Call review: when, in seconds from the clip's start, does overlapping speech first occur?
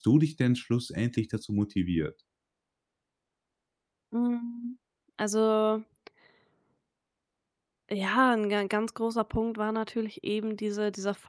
none

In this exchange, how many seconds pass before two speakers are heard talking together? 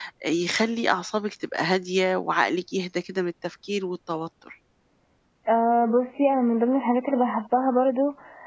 none

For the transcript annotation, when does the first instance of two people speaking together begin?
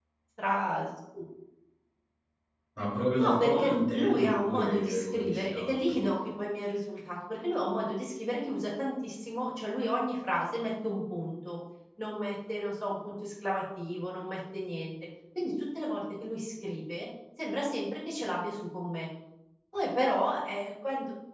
3.2 s

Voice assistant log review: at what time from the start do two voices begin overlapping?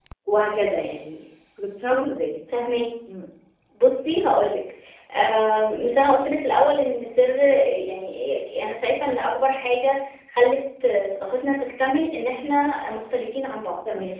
none

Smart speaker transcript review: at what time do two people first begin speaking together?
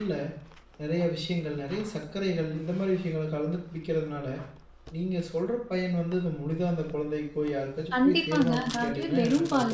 7.9 s

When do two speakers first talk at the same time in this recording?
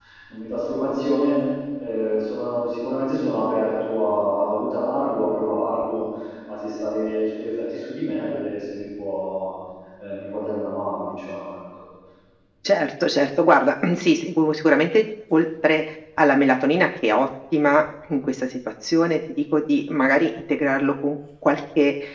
none

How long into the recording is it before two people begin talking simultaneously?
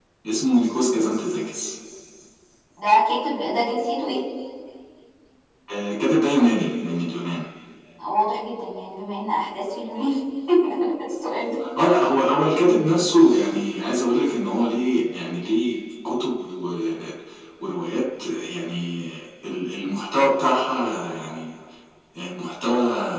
none

